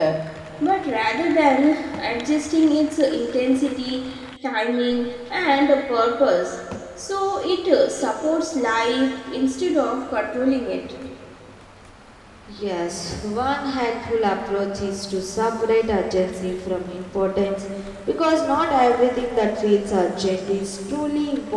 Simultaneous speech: No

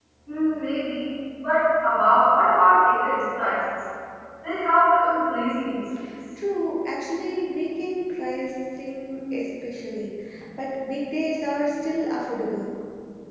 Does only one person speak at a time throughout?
Yes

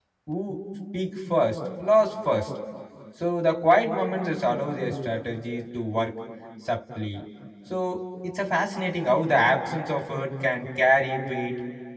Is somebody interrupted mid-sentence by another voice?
No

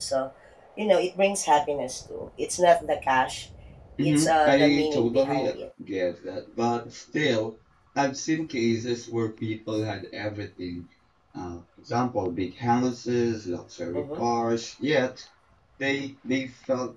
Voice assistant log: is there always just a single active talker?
No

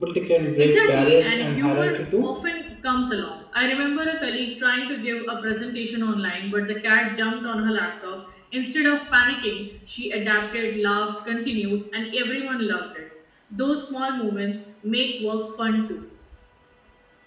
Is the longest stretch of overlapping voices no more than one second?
No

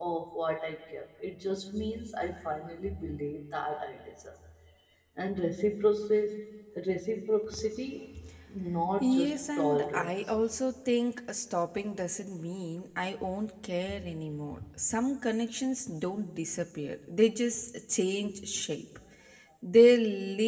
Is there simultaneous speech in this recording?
Yes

